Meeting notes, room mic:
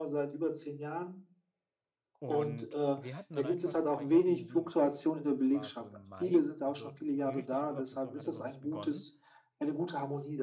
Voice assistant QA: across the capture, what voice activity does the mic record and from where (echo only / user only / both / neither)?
both